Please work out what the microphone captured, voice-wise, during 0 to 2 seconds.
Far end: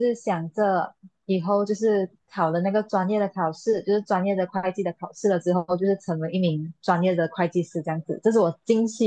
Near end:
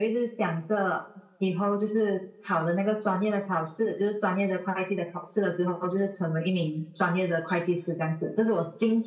echo only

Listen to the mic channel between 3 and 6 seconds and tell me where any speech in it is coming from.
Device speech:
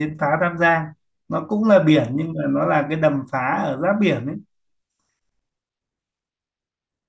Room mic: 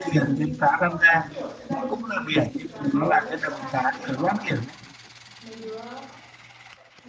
both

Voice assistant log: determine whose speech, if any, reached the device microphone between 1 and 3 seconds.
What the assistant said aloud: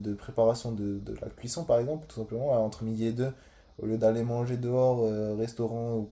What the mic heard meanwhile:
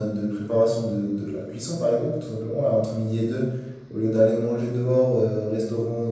echo only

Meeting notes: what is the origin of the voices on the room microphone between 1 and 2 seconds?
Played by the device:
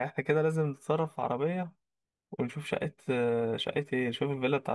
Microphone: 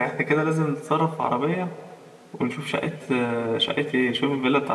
echo only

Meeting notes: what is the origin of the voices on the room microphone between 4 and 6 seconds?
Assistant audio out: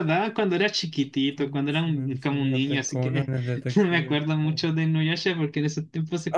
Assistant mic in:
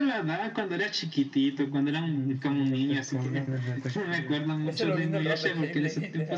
both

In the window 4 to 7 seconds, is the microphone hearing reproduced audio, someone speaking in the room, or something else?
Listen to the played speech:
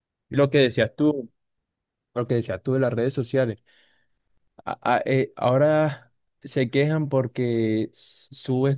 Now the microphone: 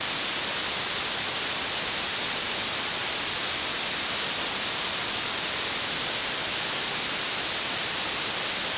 neither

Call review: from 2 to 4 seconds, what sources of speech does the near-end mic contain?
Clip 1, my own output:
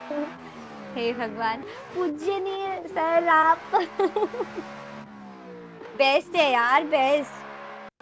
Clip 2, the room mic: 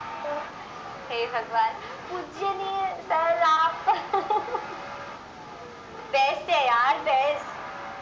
echo only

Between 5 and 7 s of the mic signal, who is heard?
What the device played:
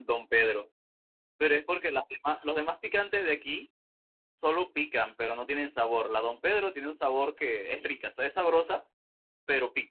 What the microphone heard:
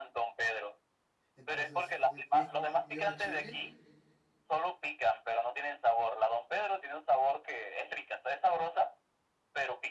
echo only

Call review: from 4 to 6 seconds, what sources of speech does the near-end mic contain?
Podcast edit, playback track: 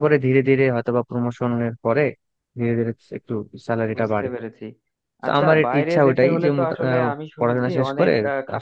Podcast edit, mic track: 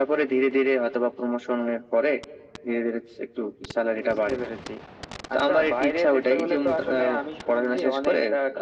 echo only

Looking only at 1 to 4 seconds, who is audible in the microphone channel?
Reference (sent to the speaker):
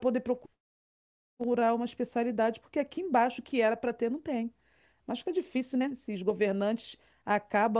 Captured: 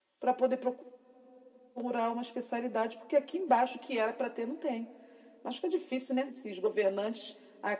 echo only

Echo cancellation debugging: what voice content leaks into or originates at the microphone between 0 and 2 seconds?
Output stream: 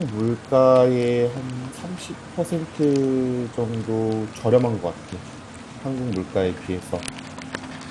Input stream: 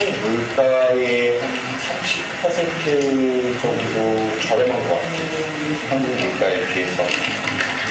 echo only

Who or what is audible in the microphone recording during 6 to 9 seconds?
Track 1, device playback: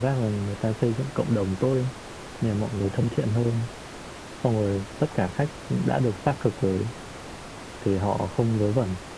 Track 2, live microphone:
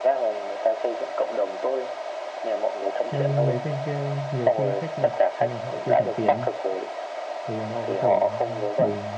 both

